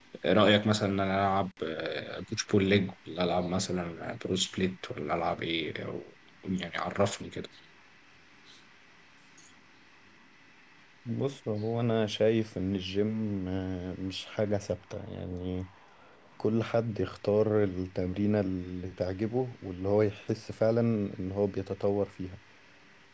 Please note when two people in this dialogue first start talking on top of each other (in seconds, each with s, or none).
none